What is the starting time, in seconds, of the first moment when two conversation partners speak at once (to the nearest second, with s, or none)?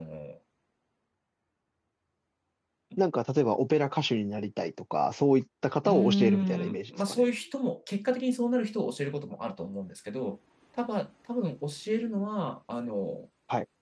6 s